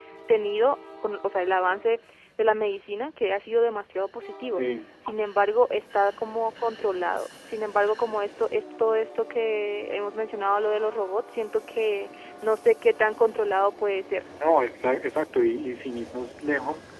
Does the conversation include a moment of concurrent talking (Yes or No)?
No